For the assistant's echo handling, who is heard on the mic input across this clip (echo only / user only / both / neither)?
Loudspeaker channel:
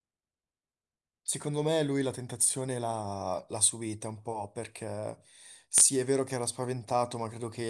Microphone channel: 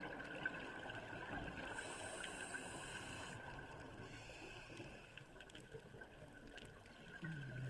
neither